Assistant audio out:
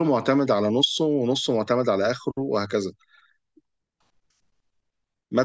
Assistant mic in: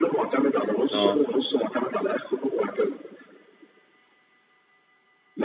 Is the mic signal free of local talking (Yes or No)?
No